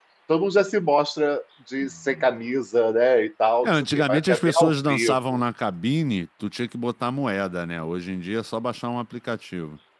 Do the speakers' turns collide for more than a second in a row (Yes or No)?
Yes